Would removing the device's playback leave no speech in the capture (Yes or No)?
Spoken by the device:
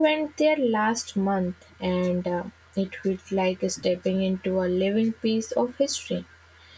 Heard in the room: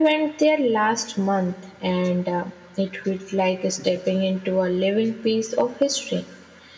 Yes